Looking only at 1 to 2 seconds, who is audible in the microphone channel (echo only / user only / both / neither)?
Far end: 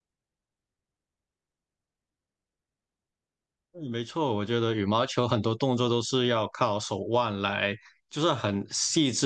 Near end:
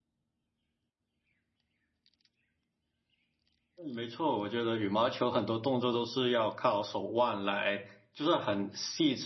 neither